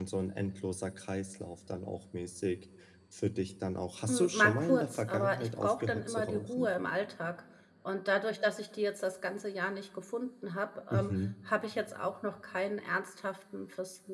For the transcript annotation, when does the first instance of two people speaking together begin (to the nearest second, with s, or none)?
4 s